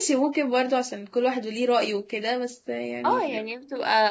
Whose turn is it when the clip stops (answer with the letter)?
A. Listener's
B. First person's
A